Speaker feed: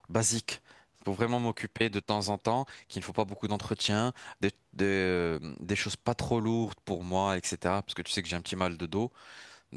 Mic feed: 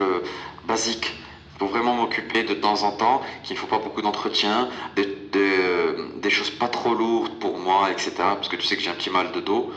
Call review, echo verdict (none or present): present